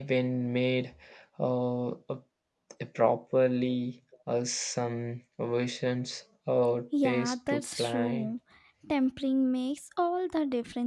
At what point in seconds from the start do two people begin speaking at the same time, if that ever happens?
6.9 s

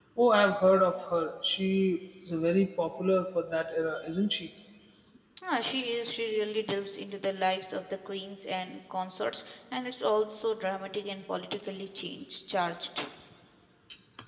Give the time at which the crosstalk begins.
none

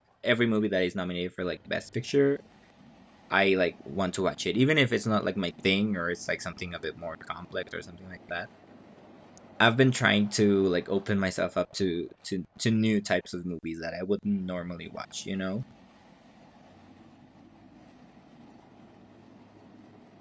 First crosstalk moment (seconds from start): none

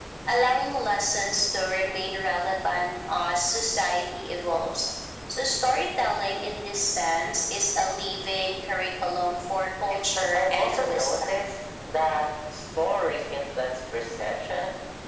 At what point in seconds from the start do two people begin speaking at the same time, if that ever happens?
10.2 s

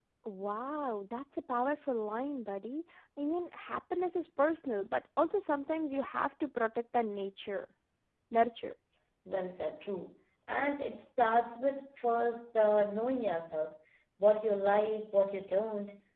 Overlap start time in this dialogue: none

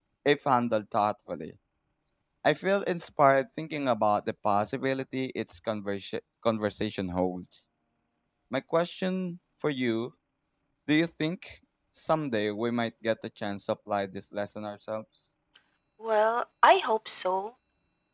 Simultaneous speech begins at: none

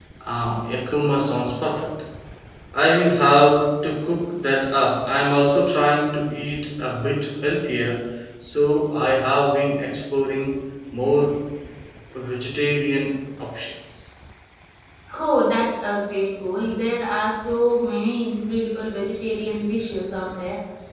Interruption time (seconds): none

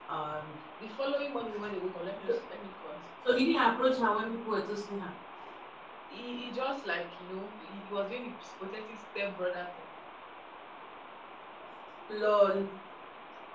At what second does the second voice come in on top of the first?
none

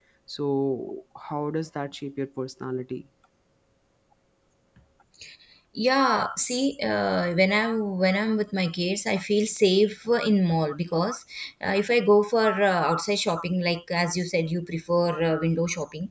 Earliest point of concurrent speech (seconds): none

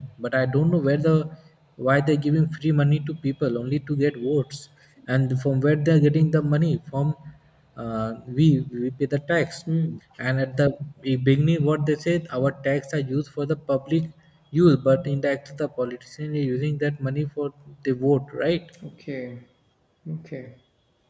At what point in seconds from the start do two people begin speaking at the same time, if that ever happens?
none

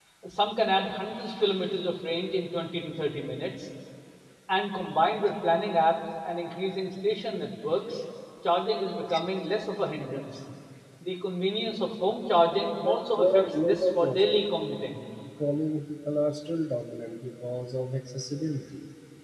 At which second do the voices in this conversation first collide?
12.8 s

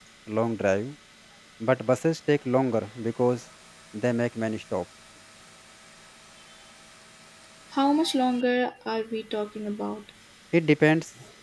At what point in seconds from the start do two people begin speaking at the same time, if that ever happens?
none

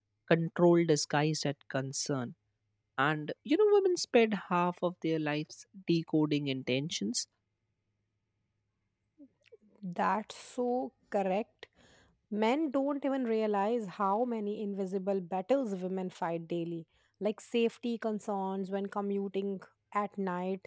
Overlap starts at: none

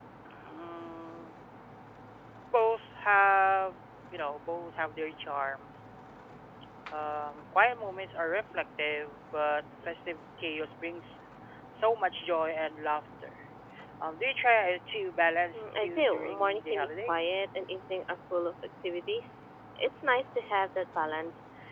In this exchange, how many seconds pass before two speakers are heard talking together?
15.5 s

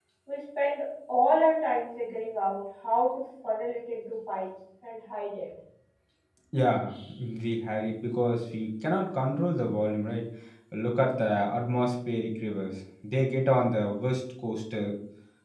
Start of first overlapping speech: none

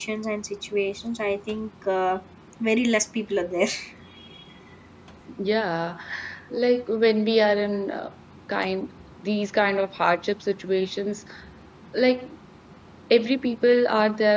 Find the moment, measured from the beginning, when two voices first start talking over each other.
none

